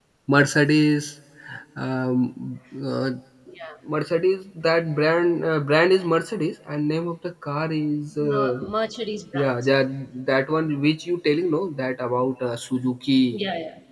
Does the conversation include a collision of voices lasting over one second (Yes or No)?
No